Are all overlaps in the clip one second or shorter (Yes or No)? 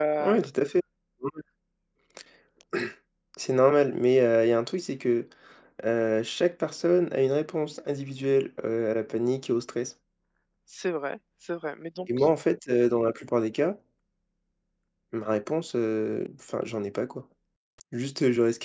Yes